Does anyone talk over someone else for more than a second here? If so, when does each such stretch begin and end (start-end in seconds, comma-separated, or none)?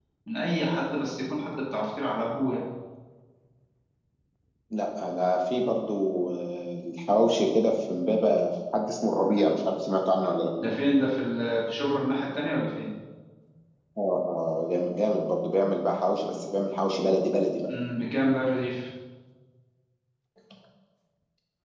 none